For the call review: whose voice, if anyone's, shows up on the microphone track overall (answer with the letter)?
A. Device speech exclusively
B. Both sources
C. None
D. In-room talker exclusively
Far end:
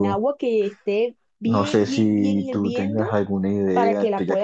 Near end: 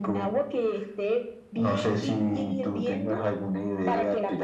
A